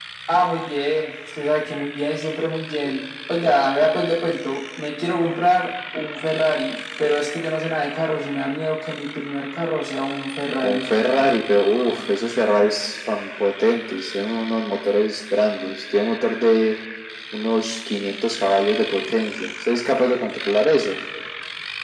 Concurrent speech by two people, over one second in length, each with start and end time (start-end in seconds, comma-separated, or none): none